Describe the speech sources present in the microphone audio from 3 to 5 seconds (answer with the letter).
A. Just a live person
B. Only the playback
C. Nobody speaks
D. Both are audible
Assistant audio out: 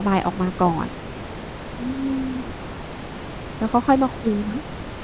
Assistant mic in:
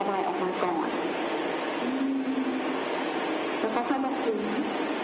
B